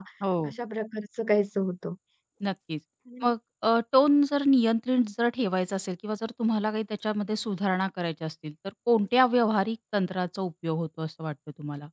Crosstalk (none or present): none